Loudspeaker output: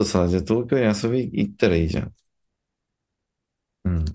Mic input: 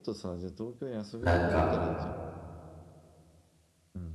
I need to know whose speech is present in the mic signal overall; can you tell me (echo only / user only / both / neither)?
both